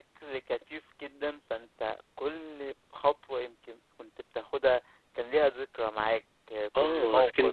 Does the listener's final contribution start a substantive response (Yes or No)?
Yes